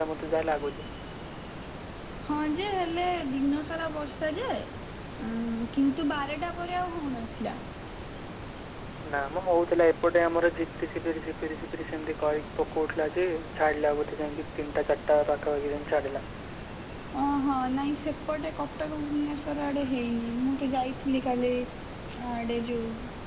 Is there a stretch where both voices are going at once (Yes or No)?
No